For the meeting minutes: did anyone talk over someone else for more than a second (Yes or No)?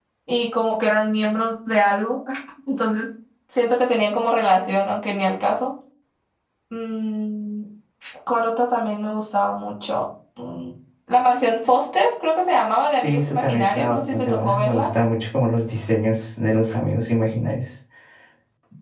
Yes